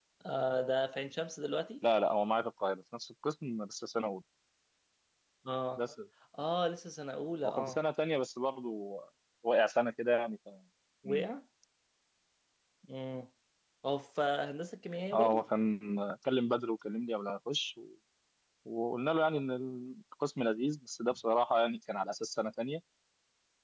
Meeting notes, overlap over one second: none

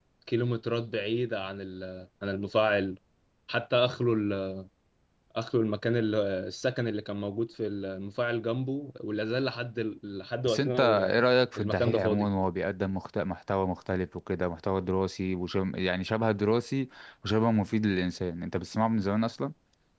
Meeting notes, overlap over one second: present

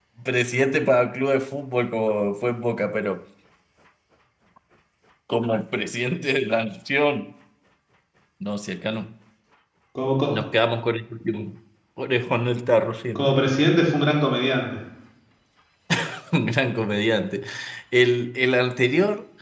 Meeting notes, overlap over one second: none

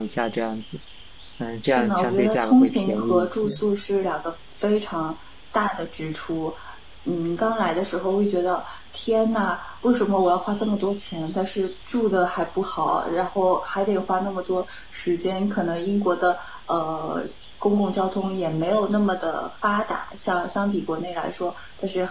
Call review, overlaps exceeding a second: present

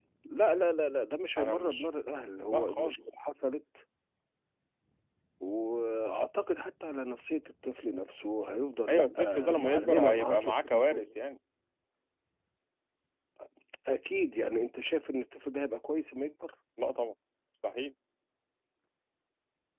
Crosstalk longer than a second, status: present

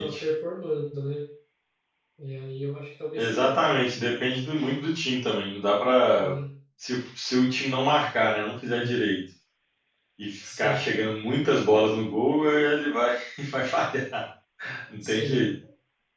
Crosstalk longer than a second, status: none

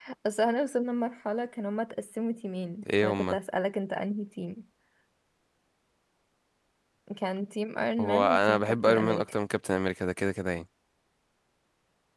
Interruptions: present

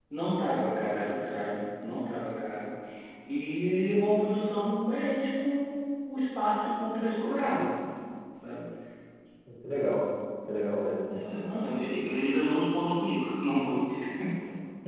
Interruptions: none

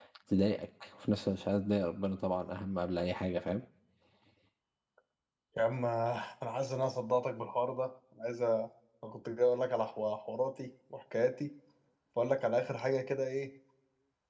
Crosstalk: none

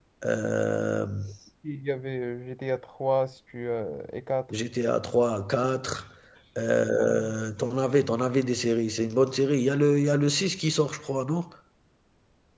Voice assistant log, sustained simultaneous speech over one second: none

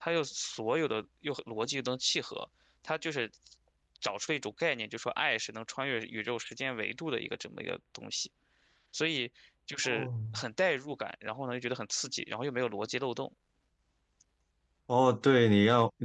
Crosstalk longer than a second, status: none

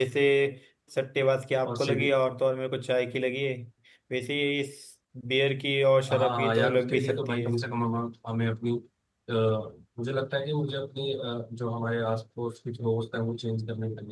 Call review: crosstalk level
present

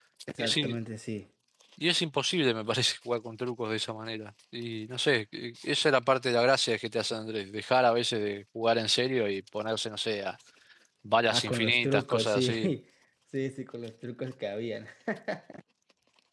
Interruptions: present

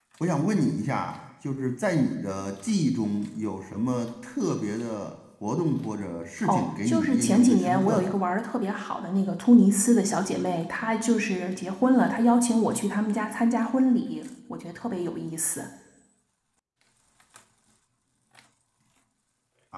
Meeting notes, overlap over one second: present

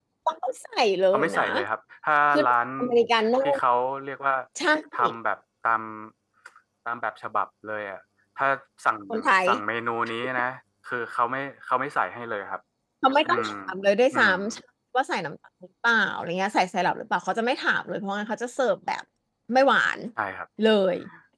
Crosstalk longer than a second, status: none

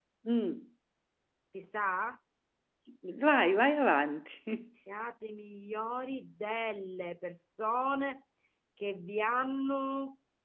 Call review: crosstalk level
none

